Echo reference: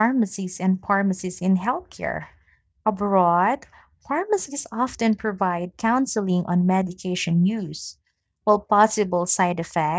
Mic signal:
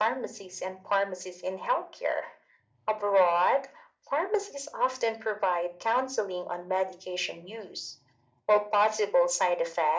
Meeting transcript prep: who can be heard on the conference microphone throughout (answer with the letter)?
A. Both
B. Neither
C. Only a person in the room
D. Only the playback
D